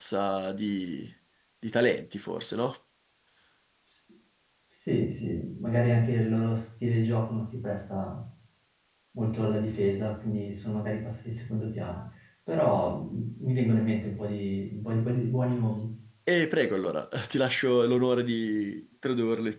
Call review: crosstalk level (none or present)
none